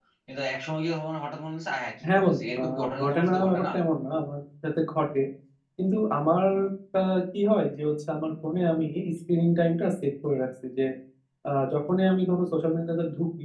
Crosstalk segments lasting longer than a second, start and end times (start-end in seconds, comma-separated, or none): 2.1-3.6